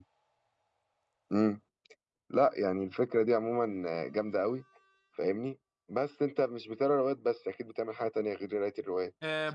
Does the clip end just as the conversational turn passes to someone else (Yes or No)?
Yes